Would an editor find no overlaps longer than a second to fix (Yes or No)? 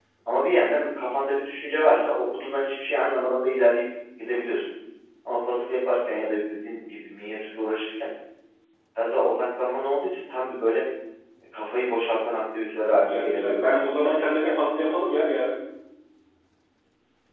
No